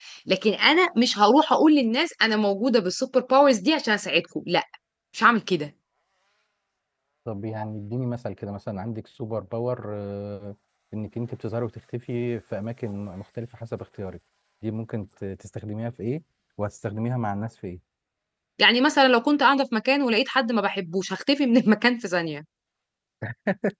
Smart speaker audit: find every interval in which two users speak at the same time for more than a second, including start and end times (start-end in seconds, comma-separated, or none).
none